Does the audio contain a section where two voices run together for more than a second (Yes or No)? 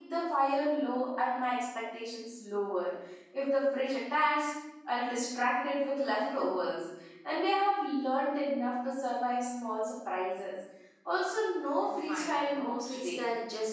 Yes